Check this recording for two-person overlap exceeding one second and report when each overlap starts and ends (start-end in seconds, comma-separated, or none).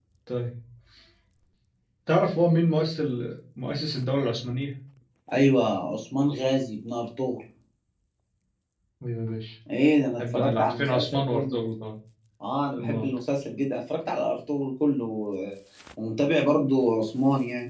10.2-11.6